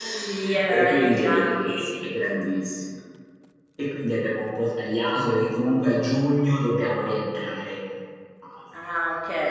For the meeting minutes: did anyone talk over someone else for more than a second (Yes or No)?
Yes